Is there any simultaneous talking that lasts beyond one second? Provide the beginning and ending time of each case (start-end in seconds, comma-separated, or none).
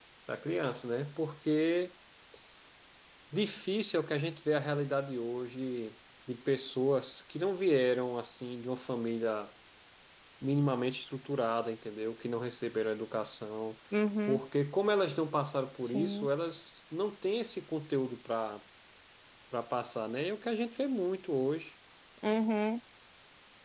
none